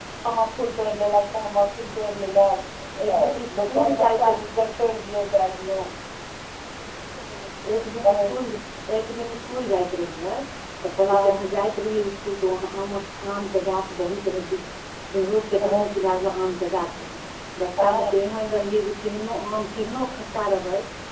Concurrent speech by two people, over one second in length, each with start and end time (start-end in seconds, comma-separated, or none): 3.1-4.3